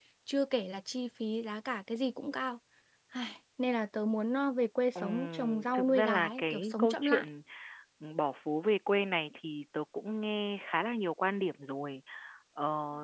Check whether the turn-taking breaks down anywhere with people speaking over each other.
Yes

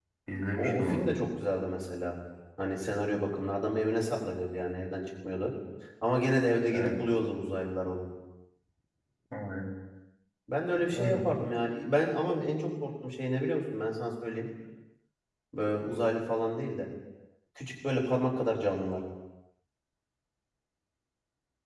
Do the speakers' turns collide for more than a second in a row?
No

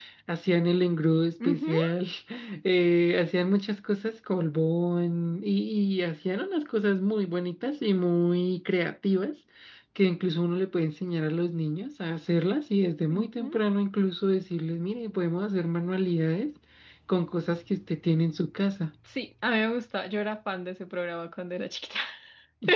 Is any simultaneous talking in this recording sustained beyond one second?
No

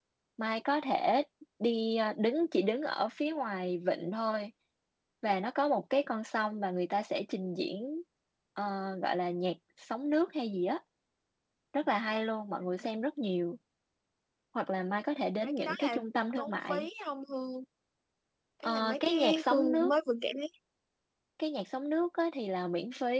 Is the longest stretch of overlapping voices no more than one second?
No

